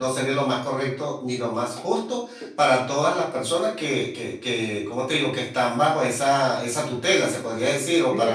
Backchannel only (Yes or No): No